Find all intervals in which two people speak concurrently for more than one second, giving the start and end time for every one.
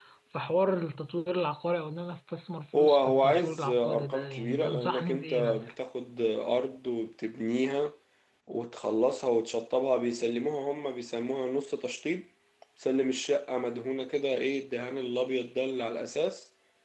2.7-5.7

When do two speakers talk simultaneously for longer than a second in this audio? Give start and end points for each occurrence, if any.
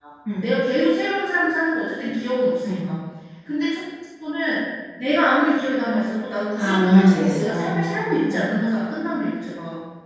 6.6-8.4

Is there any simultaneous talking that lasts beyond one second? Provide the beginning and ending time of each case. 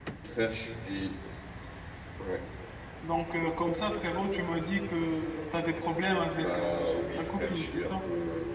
6.3-8.0

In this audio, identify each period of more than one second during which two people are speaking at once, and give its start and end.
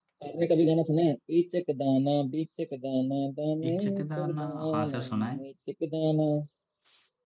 3.7-5.4

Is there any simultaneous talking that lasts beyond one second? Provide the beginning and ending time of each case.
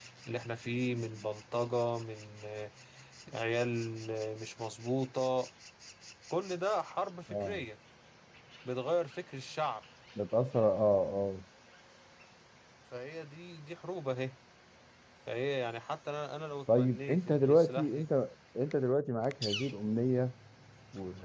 16.7-18.1

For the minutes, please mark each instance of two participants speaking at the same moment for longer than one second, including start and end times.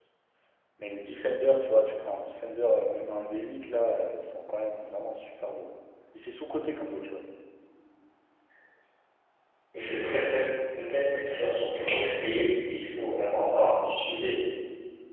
none

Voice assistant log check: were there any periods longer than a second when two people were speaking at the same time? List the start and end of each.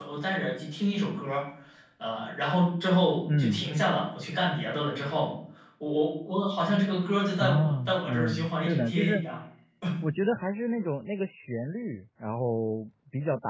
7.4-9.2

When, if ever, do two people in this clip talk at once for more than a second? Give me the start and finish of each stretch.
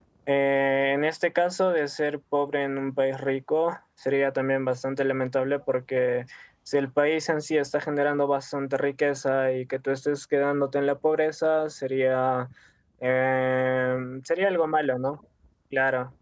none

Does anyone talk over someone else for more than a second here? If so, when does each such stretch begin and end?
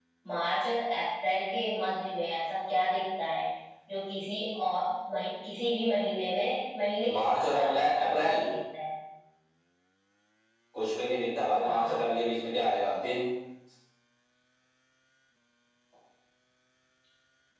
7.1-8.4

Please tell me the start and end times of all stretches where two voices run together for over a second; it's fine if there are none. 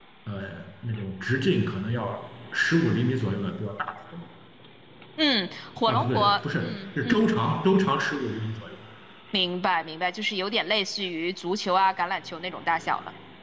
5.9-7.2

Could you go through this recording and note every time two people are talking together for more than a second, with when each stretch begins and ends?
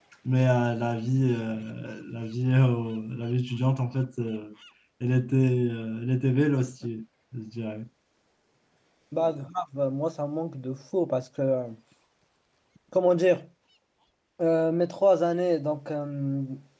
none

